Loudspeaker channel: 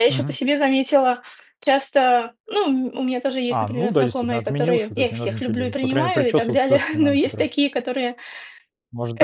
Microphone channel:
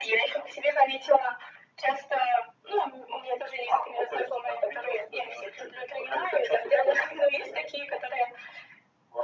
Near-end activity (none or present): none